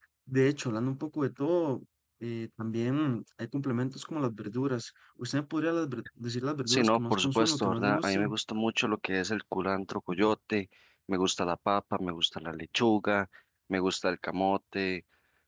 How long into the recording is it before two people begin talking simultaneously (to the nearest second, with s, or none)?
7 s